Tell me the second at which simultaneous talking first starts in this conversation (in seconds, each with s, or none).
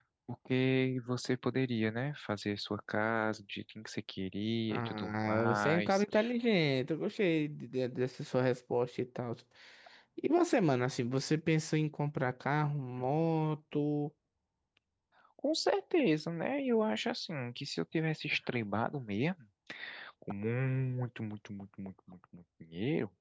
4.7 s